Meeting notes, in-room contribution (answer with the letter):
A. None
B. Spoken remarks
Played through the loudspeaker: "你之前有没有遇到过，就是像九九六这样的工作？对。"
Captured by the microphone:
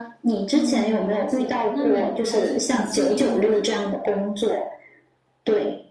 B